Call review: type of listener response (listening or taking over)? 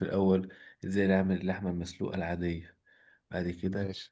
listening